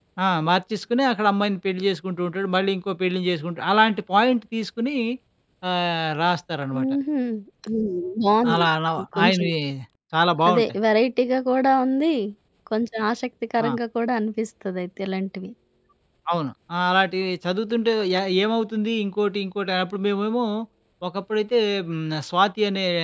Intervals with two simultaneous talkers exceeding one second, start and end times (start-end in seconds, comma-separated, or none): none